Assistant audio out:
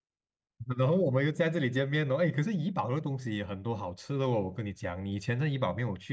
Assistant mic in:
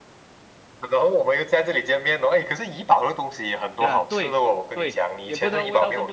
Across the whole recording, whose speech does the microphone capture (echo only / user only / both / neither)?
both